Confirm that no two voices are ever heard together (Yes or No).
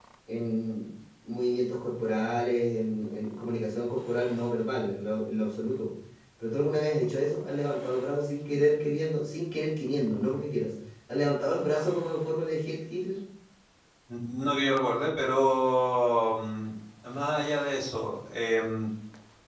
Yes